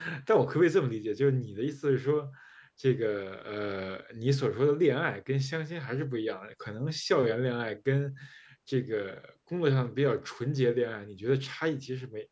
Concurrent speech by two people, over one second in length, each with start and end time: none

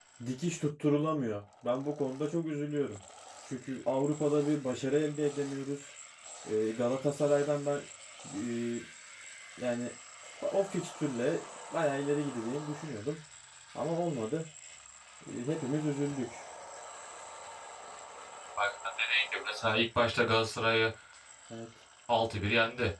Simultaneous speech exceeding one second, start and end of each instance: none

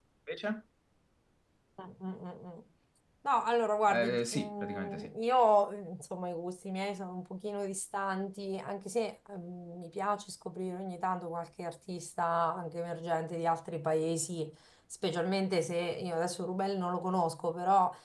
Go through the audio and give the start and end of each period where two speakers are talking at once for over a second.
3.9-5.1

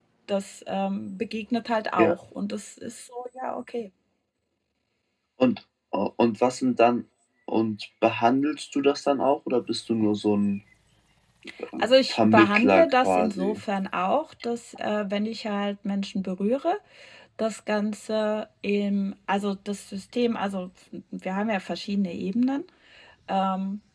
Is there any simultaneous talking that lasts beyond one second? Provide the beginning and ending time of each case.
12.1-13.6

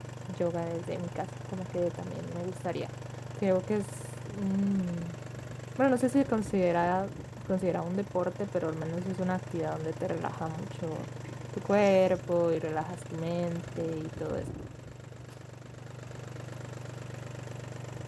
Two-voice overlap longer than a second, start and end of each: none

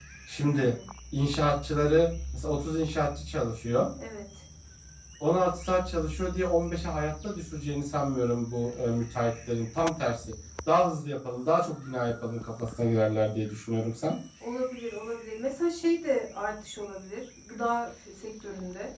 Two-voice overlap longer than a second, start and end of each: none

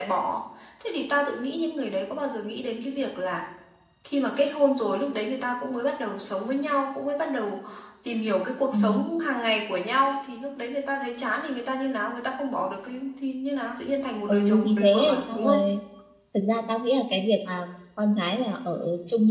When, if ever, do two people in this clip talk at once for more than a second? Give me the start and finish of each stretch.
14.3-15.6

